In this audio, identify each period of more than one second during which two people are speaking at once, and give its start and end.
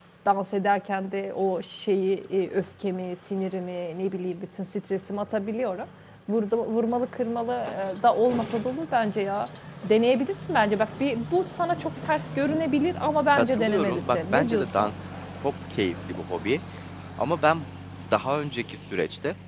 13.4-14.9

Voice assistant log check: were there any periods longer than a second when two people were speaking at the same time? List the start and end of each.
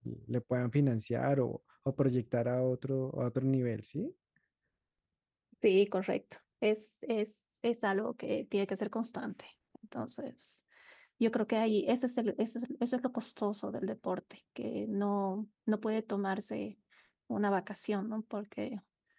none

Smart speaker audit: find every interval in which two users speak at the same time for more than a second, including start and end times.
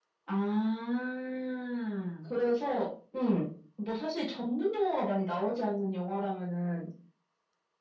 none

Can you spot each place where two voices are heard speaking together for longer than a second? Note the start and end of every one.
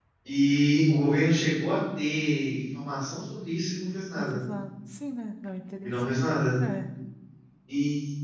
none

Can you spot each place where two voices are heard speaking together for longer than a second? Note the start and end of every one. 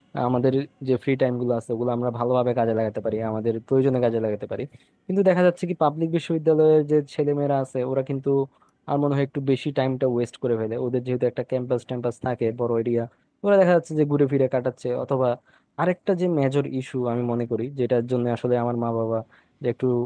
none

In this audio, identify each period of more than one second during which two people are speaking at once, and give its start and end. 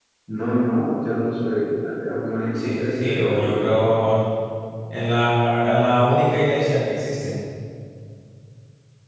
2.6-4.0

